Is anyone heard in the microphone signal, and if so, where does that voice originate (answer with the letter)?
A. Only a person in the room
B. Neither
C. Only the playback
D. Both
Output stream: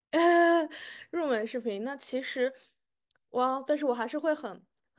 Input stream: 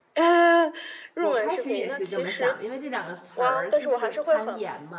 D